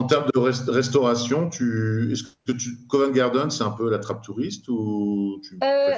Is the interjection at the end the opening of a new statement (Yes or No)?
Yes